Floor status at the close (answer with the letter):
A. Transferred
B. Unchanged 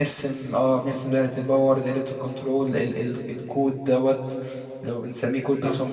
A